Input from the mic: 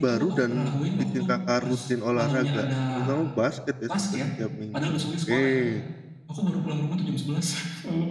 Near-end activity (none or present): present